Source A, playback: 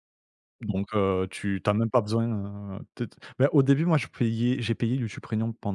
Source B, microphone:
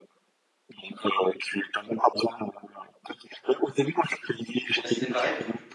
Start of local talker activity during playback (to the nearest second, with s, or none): 5 s